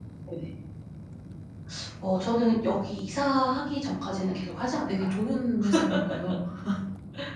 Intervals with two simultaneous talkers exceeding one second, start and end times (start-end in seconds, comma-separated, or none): none